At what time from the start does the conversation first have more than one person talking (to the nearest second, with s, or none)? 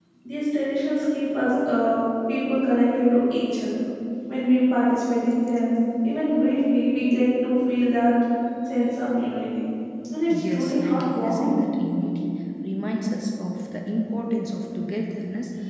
10 s